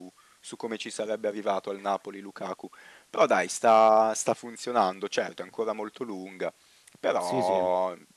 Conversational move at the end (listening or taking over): listening